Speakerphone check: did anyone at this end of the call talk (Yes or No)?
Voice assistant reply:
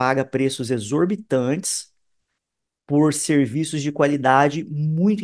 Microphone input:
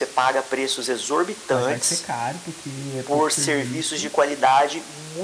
Yes